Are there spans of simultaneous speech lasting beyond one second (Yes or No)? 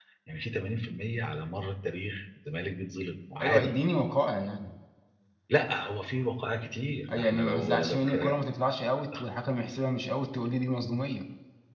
Yes